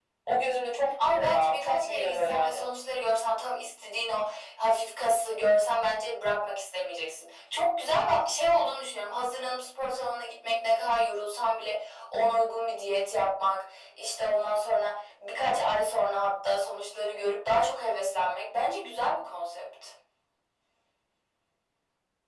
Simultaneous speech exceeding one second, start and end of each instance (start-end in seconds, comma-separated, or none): 1.1-2.7